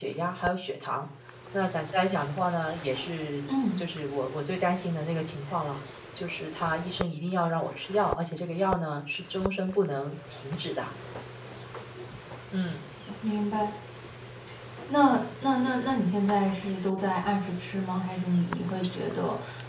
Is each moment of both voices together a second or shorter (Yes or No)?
Yes